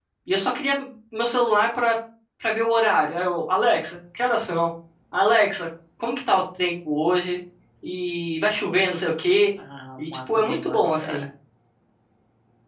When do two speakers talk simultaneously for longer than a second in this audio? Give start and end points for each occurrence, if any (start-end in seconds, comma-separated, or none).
10.0-11.2